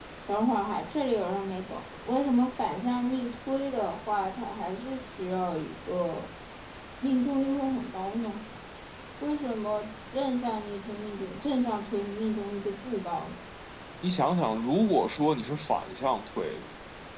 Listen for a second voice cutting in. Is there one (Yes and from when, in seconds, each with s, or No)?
No